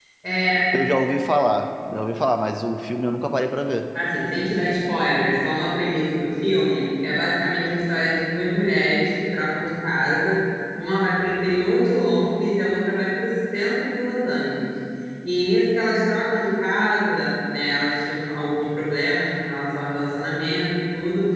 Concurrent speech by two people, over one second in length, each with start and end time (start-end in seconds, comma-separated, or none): none